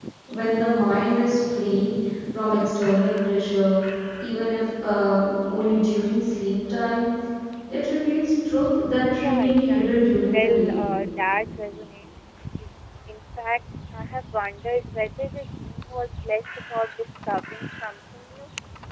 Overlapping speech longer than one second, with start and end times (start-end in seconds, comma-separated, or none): 9.2-10.8